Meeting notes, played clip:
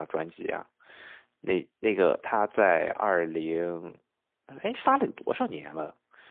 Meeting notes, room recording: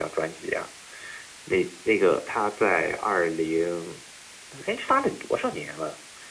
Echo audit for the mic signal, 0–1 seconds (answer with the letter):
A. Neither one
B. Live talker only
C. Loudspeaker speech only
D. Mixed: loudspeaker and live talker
C